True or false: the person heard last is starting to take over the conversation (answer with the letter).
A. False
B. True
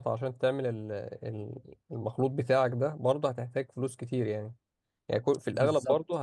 A